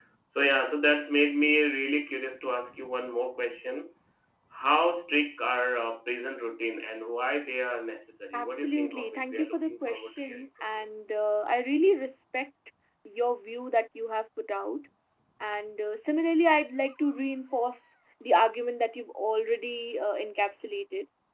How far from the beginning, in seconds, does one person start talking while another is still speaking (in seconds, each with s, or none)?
8.3 s